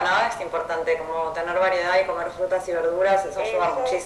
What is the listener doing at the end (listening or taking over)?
taking over